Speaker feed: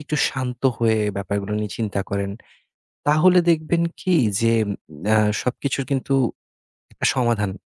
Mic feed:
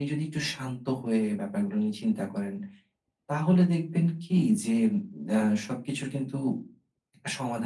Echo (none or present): present